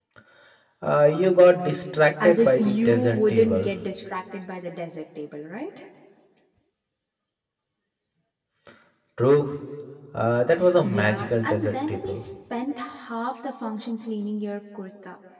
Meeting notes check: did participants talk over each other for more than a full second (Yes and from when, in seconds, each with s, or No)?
Yes, from 2.2 s